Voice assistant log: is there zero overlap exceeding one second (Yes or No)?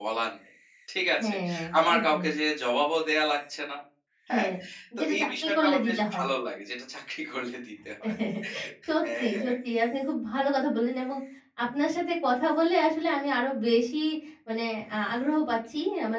No